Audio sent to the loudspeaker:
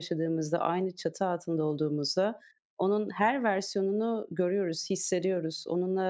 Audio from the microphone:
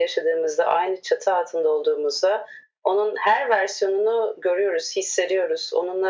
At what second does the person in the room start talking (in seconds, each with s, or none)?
none